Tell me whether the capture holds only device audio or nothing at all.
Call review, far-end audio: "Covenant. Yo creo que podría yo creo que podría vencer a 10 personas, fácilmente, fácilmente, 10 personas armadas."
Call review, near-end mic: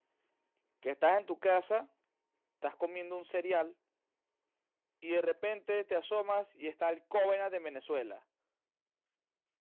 No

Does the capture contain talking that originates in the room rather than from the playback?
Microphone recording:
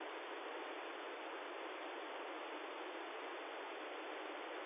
No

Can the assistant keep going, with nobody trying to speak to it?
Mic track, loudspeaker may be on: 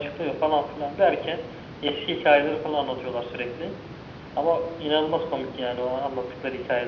Yes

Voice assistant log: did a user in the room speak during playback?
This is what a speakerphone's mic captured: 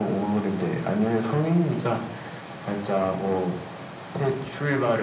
No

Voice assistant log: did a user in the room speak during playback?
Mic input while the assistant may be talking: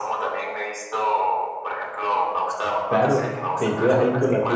Yes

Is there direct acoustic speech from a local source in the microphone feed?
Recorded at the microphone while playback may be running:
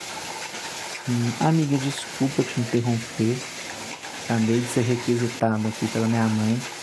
Yes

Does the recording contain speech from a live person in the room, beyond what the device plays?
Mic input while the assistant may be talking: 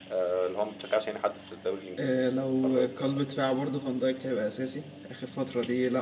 Yes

